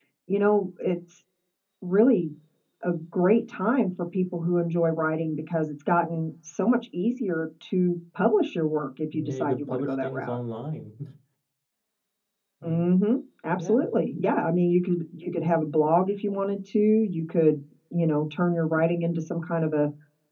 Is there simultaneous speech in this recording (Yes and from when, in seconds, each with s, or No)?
Yes, from 9.1 s